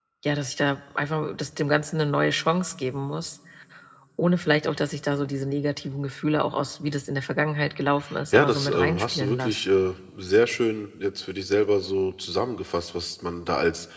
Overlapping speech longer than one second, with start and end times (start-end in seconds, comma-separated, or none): 8.3-9.6